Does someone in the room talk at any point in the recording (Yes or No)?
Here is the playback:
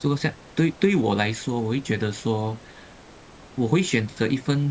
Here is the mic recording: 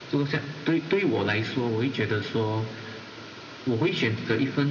No